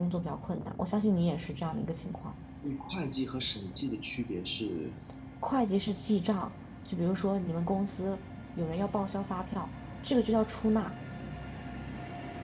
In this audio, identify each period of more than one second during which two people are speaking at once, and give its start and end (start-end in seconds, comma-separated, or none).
none